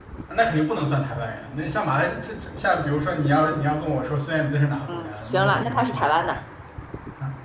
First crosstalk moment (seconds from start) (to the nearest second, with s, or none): 5 s